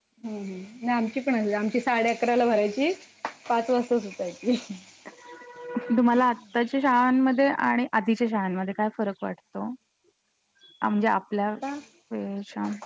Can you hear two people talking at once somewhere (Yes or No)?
No